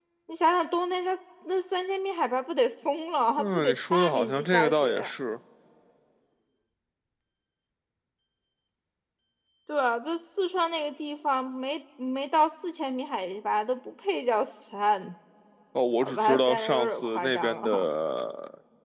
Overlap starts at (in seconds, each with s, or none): 3.4 s